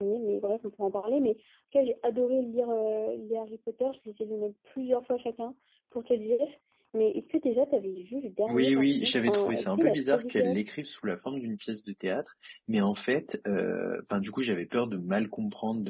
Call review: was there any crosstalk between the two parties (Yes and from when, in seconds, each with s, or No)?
Yes, from 8.5 s